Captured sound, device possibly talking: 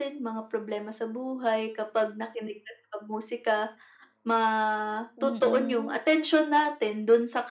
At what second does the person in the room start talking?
5.2 s

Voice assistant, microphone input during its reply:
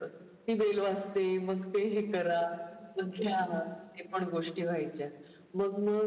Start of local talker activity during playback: none

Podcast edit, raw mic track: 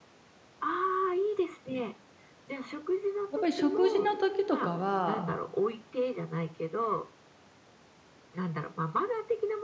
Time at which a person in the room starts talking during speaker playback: 3.3 s

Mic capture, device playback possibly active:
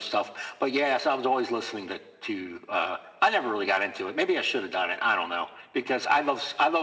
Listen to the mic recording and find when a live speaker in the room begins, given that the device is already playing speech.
none

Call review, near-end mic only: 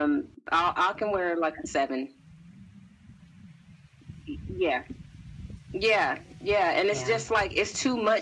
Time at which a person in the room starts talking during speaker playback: 6.9 s

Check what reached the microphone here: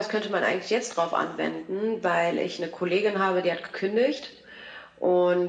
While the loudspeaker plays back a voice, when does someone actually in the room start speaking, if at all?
none

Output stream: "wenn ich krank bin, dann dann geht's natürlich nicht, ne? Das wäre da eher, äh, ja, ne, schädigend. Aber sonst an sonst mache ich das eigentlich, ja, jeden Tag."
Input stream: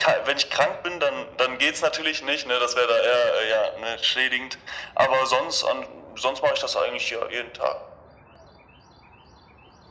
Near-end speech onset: none

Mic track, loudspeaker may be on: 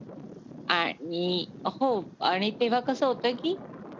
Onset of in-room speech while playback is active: none

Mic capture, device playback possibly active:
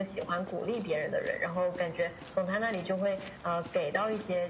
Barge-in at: none

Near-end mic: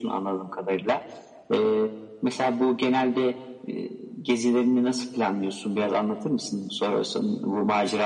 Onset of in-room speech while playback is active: none

